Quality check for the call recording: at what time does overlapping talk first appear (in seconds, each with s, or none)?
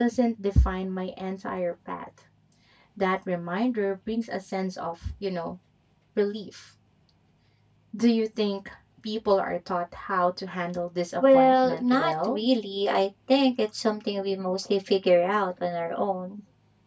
11.2 s